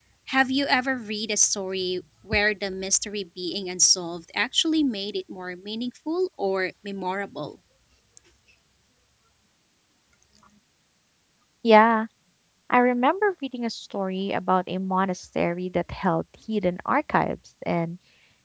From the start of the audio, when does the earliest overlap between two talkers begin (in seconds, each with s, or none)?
none